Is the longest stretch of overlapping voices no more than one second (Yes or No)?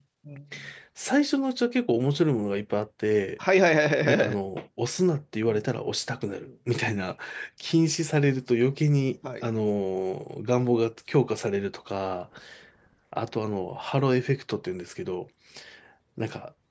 Yes